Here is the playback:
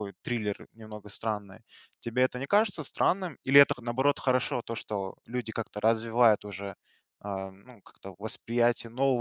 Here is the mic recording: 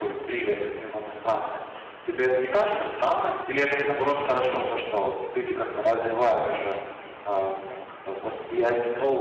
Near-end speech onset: none

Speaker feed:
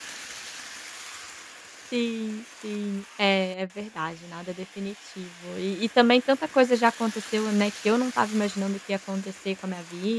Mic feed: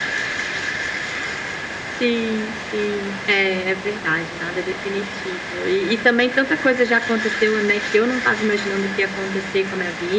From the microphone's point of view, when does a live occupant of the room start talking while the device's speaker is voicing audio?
none

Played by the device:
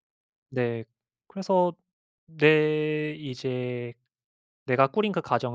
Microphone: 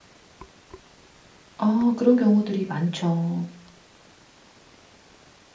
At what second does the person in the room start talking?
1.6 s

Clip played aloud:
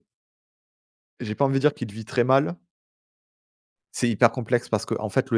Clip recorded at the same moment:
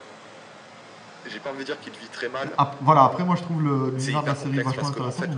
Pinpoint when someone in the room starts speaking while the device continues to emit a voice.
2.4 s

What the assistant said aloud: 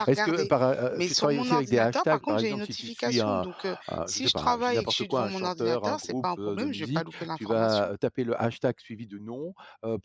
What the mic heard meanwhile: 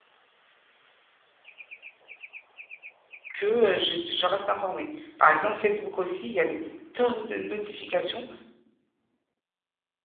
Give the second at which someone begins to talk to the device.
3.3 s

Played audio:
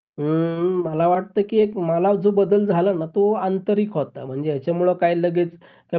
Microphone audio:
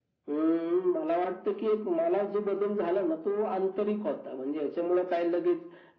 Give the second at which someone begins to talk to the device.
none

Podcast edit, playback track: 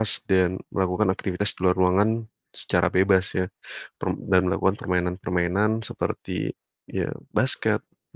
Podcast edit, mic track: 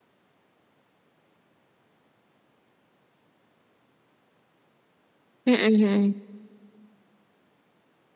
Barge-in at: 5.4 s

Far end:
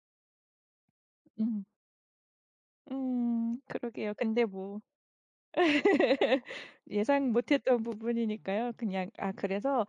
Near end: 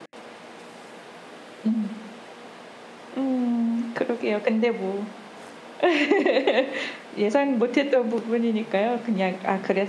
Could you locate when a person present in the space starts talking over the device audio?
none

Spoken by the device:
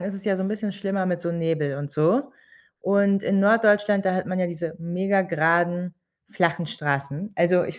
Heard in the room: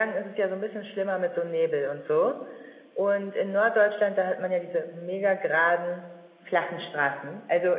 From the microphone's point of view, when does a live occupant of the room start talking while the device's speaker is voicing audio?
none

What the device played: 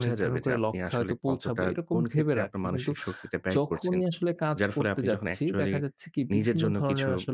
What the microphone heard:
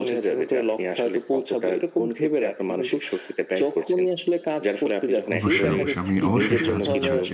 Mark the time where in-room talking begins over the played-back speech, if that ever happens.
5.3 s

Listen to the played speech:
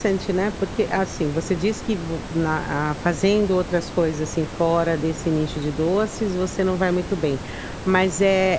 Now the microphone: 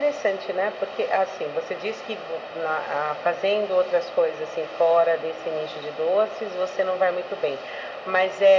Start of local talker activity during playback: none

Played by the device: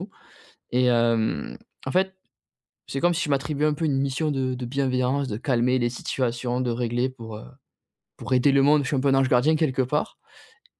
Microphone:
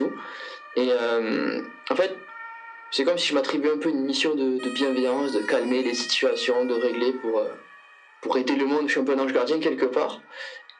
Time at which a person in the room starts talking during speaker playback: none

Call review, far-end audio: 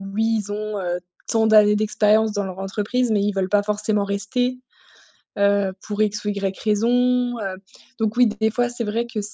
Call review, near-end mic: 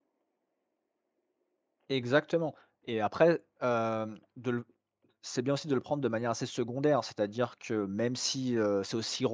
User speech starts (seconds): 1.9 s

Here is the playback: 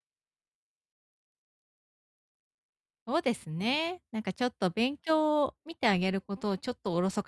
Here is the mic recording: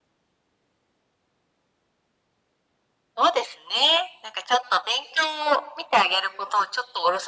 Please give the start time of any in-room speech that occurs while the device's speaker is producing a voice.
none

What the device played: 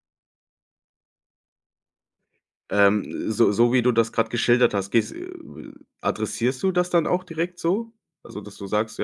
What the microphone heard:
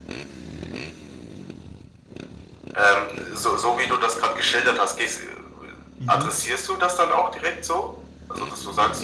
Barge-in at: 6.0 s

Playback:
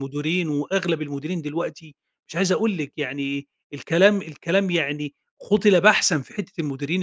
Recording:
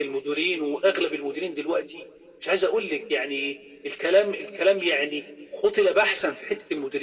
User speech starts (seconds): none

